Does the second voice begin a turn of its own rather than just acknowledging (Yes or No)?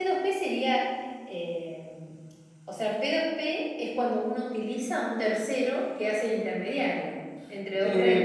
Yes